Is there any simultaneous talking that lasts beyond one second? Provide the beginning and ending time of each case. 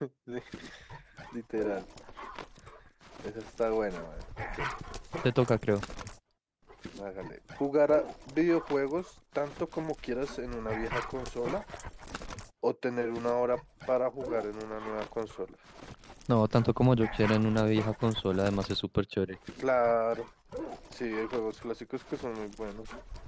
none

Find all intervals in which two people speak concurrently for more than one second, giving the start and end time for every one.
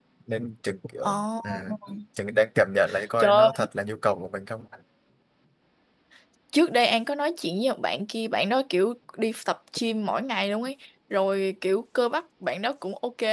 none

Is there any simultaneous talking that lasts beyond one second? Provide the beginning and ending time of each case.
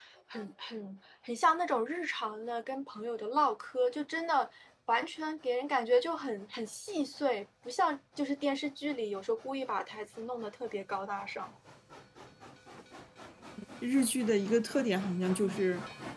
none

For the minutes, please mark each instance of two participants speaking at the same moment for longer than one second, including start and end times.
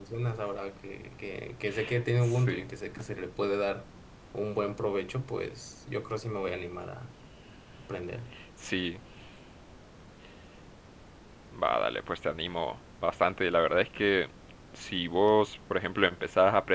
none

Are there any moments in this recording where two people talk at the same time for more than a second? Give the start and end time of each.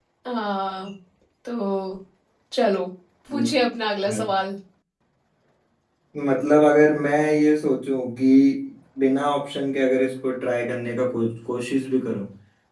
none

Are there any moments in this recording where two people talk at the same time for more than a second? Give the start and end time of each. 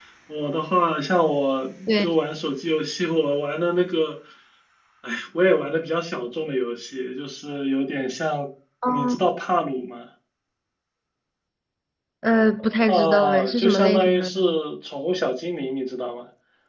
12.9-14.4

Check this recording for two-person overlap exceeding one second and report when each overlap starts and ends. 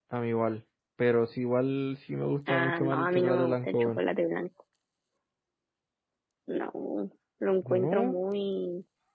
2.5-4.0

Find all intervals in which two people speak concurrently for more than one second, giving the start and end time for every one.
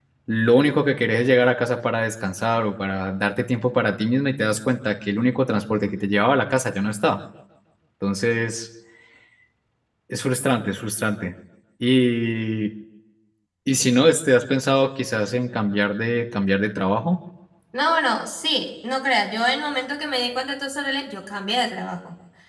none

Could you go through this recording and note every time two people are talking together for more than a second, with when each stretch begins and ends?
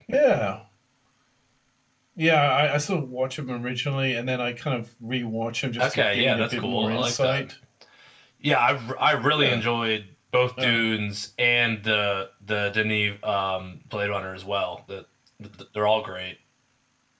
5.8-7.4

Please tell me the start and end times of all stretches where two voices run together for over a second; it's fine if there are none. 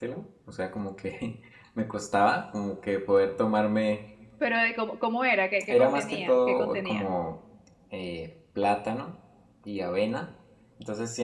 5.7-7.0

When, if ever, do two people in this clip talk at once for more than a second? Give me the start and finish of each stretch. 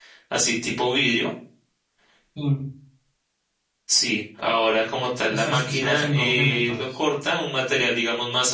5.3-7.0

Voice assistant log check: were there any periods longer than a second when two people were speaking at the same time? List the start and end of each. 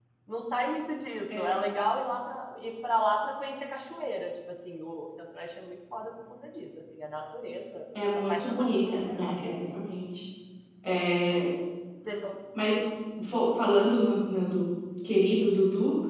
8.2-9.8

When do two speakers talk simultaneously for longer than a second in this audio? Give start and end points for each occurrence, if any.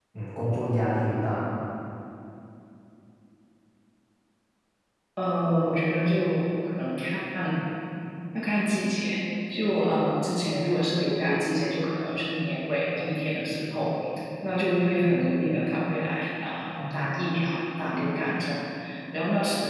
none

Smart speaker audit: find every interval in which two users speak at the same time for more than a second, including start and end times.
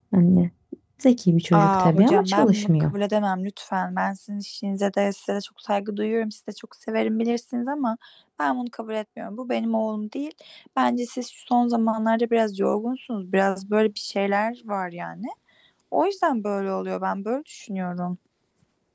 1.5-2.9

